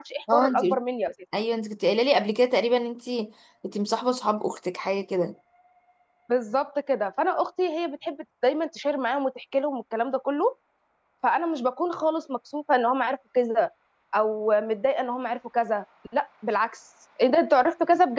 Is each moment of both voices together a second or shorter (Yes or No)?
Yes